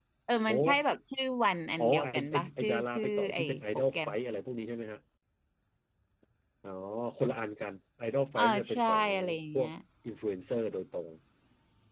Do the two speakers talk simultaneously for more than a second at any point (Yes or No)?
Yes